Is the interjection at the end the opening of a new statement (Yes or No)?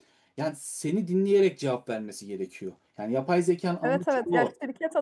Yes